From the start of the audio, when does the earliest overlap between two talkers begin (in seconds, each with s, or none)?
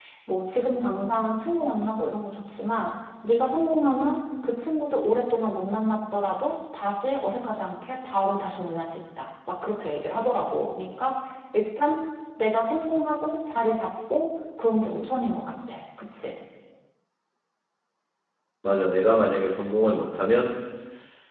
none